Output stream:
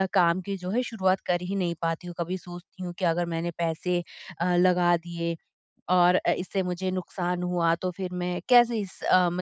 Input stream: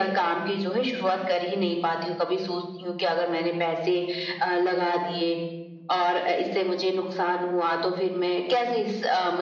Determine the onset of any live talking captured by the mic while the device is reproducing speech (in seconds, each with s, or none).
none